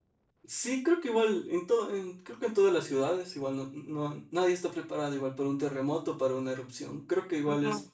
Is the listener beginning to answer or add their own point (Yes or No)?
No